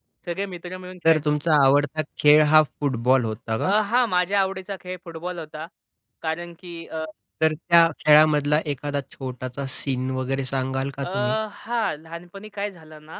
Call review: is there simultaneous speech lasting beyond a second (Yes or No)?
No